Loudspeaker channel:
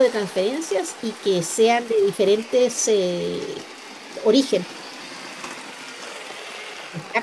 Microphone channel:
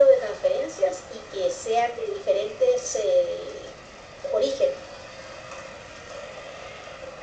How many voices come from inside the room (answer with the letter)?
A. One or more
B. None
B